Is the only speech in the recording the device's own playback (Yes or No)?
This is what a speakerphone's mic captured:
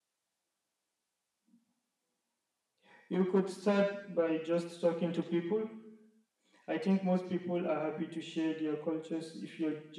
Yes